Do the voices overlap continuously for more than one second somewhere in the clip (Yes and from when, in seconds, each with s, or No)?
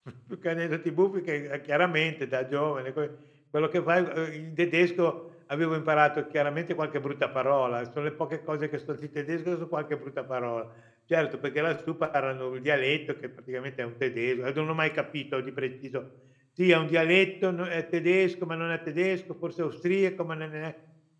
No